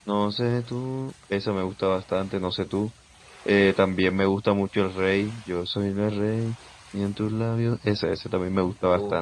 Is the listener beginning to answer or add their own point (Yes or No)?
No